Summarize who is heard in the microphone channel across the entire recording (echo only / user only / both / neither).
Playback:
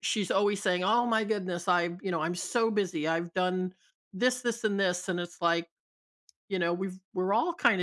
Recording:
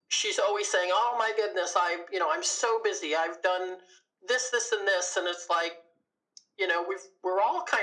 echo only